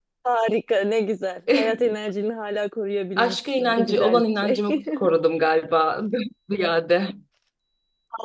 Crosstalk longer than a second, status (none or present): present